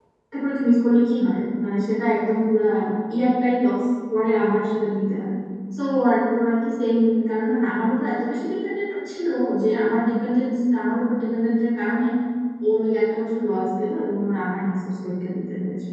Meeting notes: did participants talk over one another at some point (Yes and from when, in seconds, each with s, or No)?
No